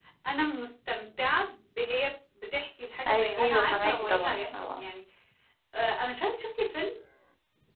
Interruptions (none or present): present